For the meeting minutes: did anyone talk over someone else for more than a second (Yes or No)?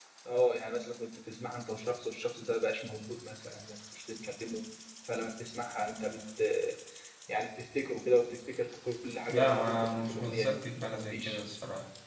Yes